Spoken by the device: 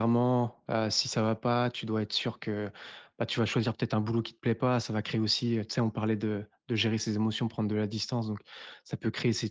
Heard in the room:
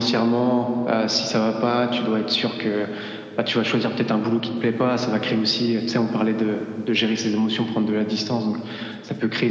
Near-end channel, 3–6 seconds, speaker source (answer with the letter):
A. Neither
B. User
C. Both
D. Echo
D